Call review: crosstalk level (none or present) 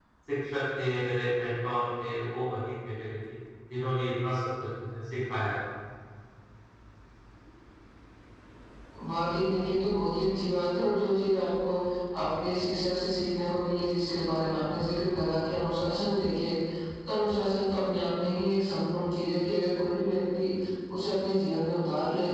none